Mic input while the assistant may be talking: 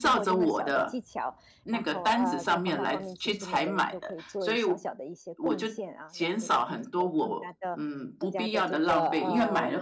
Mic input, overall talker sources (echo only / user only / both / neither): both